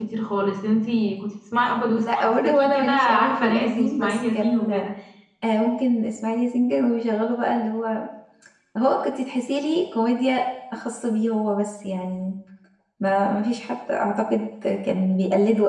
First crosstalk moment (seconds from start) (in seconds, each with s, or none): 2.0 s